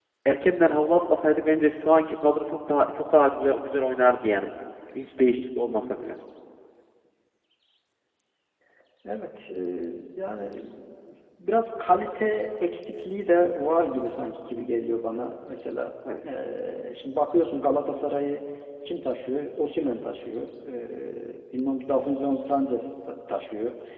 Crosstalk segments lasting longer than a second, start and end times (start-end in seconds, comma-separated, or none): none